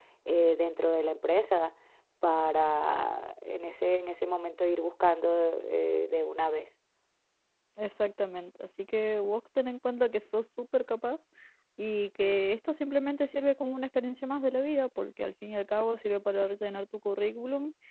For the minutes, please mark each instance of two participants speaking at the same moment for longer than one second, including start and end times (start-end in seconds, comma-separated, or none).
none